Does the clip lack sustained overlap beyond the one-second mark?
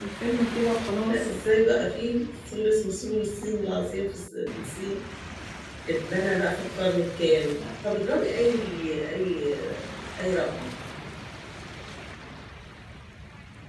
Yes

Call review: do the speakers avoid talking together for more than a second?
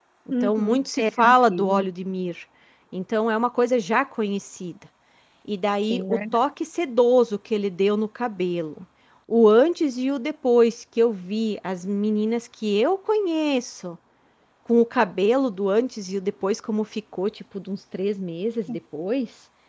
No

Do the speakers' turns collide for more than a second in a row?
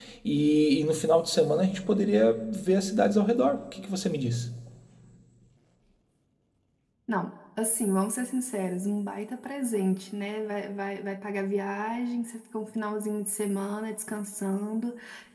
No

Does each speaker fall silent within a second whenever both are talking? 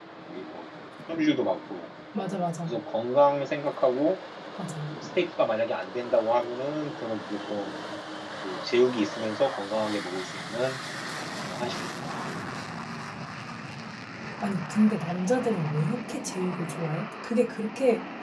Yes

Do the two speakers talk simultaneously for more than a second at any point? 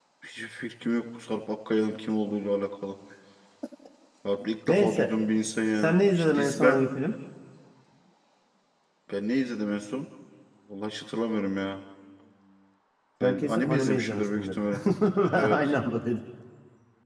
Yes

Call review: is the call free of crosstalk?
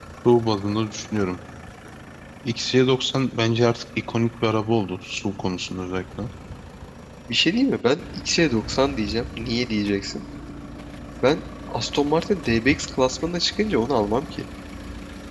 Yes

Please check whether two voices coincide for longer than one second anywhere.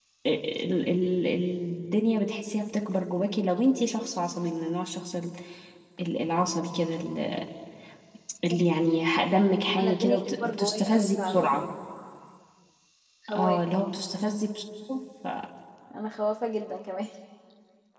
Yes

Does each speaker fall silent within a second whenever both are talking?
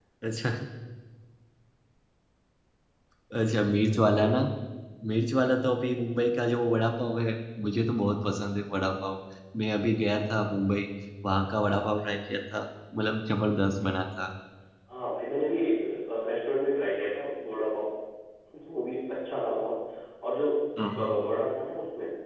Yes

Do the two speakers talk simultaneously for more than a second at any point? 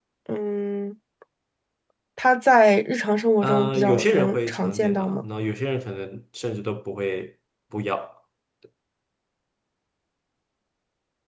Yes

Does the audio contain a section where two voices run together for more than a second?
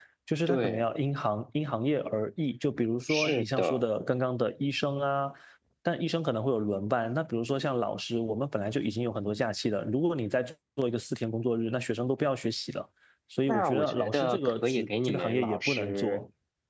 Yes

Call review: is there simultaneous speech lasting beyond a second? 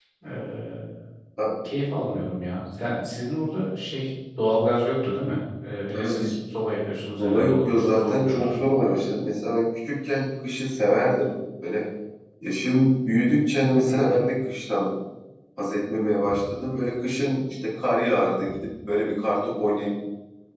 Yes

